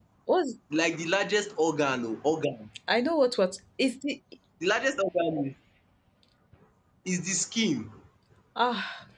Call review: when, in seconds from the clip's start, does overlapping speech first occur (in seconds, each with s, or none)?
none